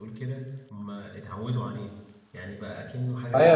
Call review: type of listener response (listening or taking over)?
taking over